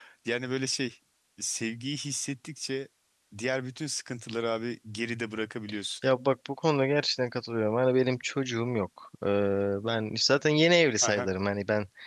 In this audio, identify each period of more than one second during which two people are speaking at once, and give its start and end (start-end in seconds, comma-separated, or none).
none